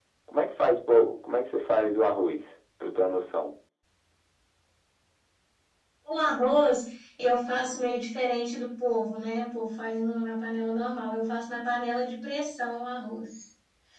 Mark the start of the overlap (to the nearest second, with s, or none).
none